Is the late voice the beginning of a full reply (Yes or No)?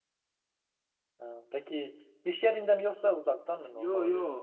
Yes